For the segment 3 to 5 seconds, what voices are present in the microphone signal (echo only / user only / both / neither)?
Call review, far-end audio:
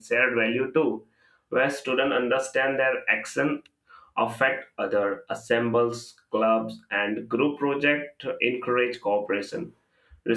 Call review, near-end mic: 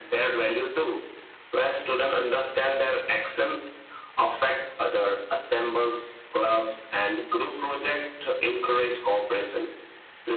echo only